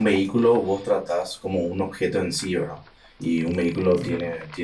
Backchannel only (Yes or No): Yes